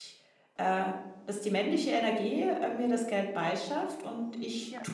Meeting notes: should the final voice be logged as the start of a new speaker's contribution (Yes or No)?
No